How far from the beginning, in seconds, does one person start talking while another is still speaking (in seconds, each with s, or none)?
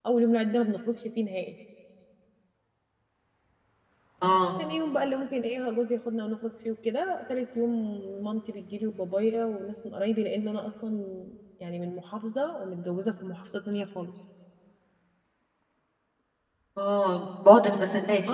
none